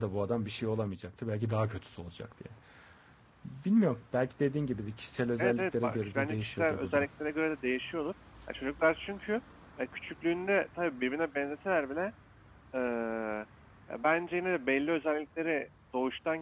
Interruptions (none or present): present